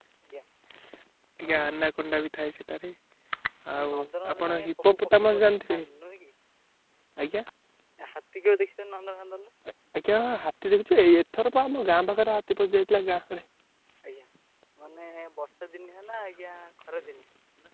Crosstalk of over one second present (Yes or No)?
Yes